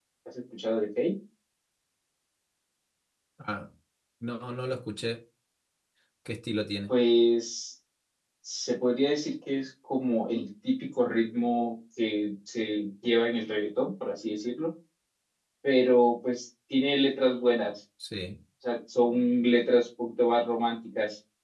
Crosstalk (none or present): none